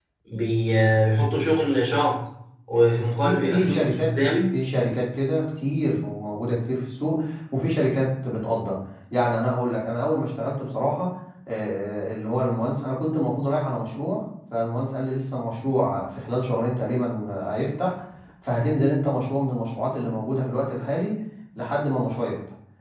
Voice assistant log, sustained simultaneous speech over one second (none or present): present